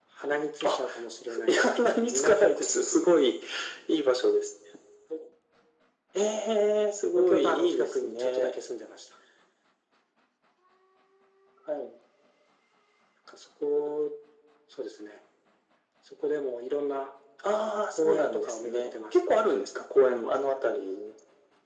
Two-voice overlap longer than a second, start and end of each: 1.5-3.2, 7.2-8.5, 17.9-19.4

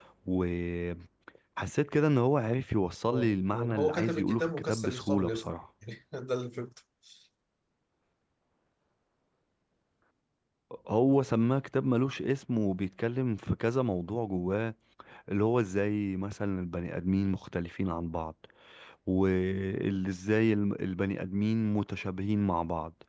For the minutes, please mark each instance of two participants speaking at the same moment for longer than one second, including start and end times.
3.1-5.4

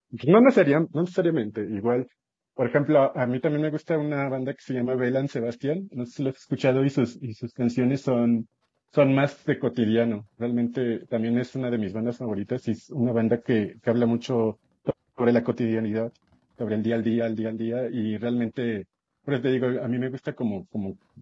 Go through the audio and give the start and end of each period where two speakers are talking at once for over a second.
none

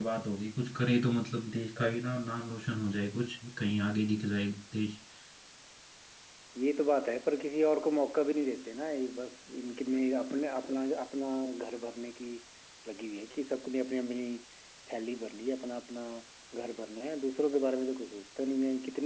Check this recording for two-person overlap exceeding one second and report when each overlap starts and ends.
none

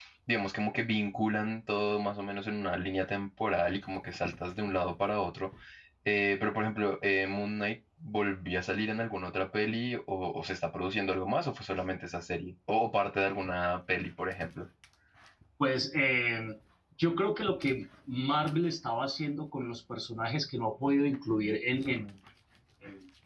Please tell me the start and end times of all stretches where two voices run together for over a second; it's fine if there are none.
none

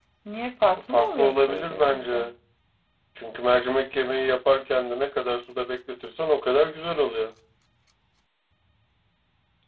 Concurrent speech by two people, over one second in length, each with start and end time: 0.9-2.2

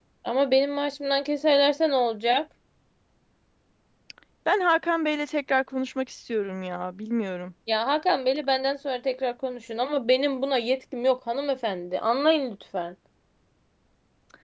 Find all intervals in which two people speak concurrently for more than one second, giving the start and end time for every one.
none

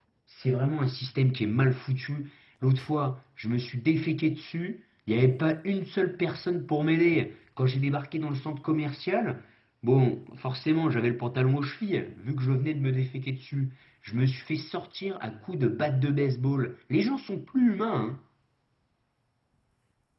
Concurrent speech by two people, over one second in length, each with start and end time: none

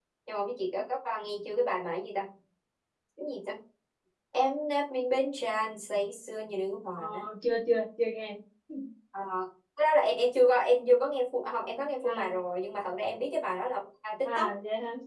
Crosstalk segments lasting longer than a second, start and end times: none

